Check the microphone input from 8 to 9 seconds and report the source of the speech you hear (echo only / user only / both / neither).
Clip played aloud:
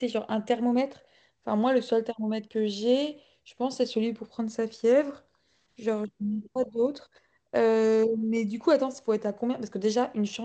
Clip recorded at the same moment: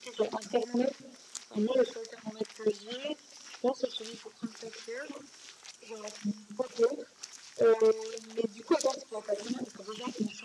echo only